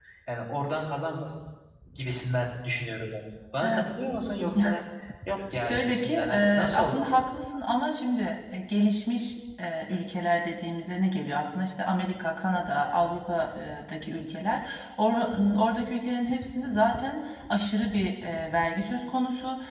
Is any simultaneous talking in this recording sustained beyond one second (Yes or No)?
Yes